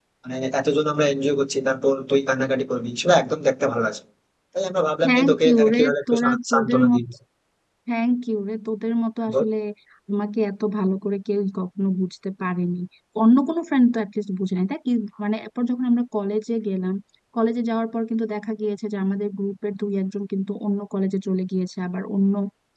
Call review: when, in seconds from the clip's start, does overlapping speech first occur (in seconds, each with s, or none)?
5.0 s